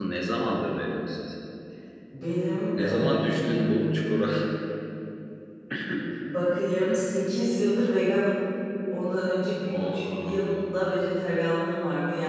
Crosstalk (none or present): present